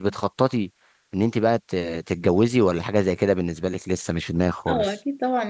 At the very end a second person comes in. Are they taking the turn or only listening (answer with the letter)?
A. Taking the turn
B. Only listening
A